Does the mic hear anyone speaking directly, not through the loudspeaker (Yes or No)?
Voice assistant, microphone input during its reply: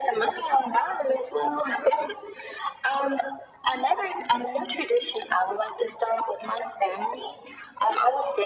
No